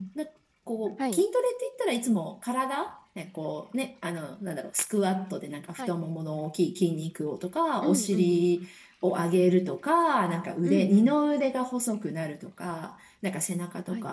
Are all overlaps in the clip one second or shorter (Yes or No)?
Yes